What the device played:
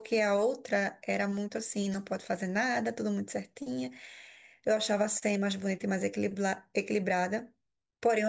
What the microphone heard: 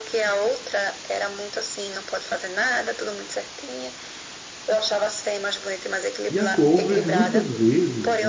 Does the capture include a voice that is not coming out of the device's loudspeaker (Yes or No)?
Yes